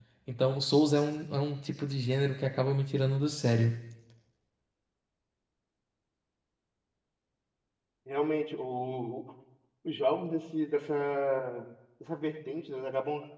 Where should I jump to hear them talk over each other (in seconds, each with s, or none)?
none